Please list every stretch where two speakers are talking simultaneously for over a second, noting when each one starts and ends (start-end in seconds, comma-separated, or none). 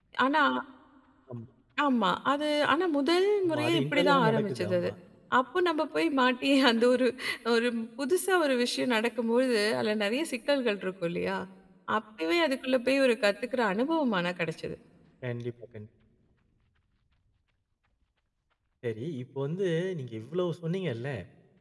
3.4-4.9